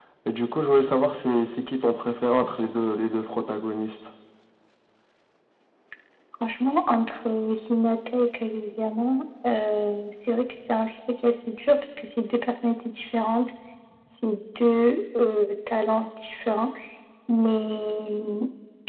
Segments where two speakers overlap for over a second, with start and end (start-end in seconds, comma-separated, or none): none